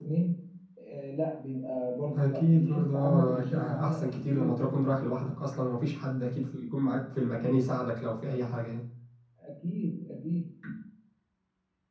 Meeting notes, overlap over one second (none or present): present